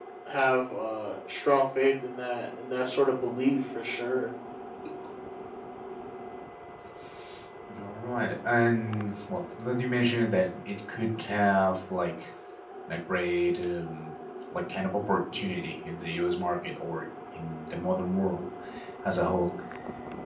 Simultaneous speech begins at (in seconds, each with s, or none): none